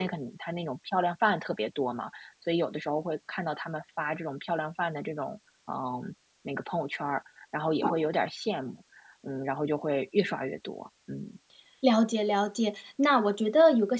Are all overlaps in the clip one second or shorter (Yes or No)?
Yes